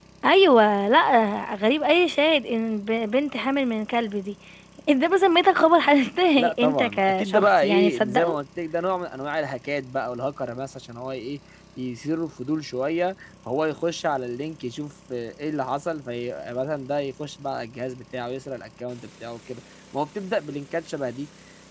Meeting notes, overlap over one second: present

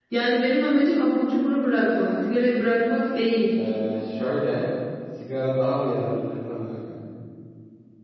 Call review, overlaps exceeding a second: none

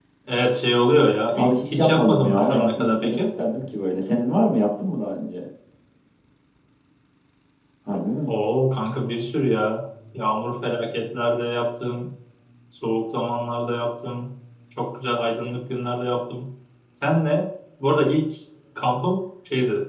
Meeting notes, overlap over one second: present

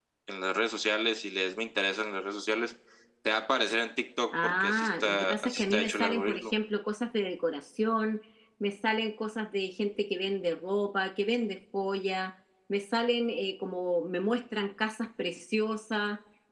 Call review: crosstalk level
present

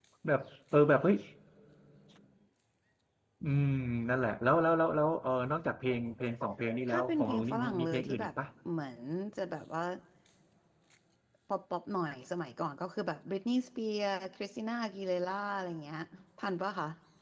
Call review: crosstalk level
present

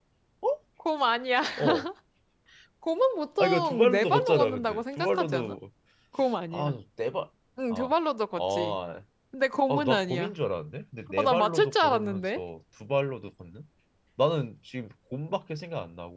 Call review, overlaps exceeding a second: present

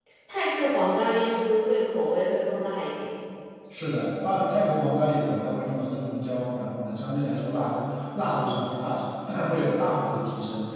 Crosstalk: none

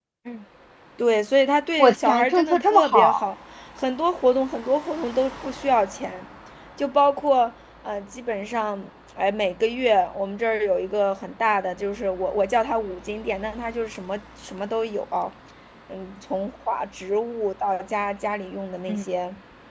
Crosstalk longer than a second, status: present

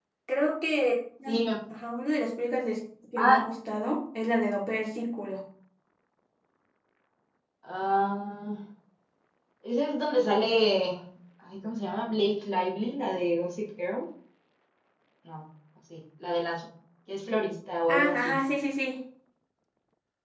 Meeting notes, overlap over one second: none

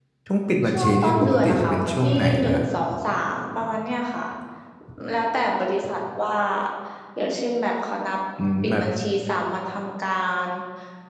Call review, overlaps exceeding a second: present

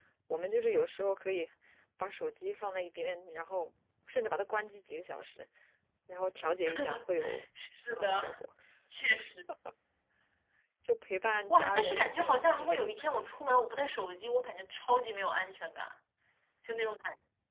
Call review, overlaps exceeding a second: present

